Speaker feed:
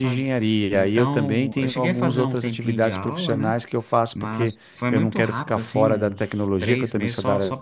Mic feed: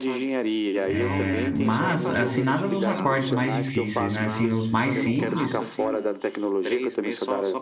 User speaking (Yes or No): Yes